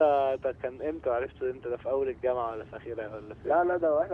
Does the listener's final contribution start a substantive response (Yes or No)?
Yes